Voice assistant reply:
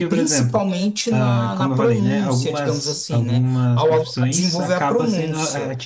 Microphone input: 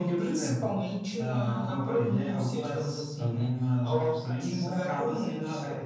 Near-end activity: none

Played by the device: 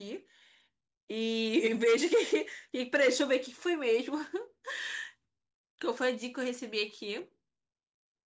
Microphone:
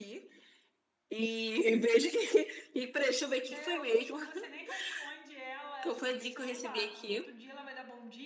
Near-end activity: present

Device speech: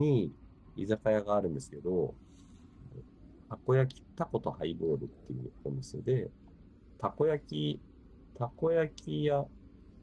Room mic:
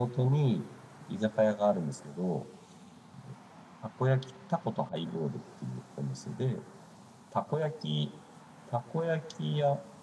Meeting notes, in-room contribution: none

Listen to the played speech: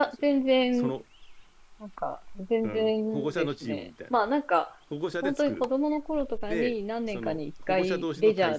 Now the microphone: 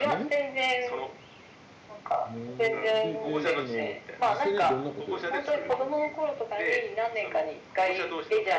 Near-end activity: present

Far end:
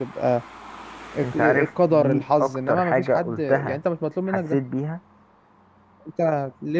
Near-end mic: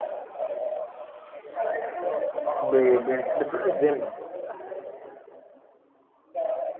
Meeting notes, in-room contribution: present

